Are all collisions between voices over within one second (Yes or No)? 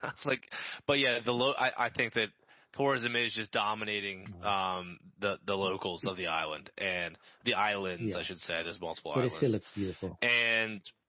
Yes